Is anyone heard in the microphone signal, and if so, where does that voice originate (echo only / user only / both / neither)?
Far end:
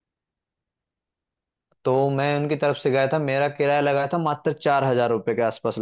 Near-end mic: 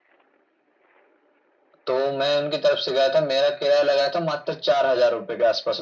echo only